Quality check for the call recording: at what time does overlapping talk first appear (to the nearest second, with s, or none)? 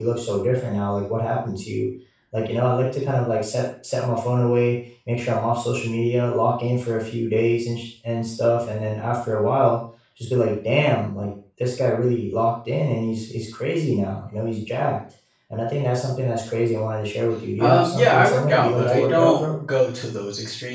18 s